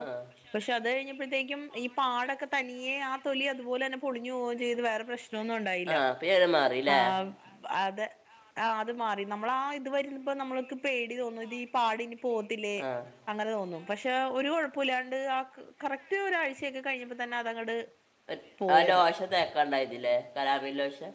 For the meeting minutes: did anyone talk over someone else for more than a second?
No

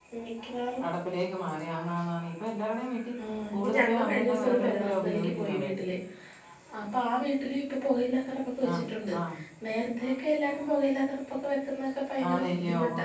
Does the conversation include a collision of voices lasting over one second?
Yes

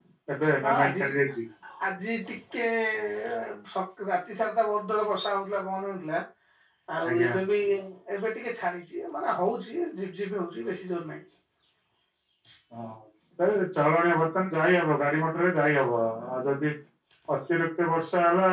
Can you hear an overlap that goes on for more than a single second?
No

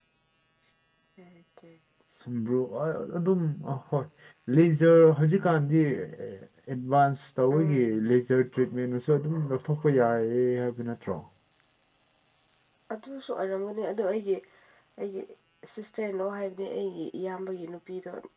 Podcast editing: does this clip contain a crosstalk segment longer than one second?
No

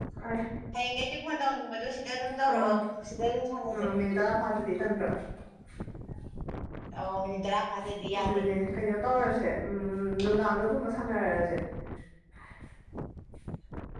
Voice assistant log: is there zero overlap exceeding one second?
Yes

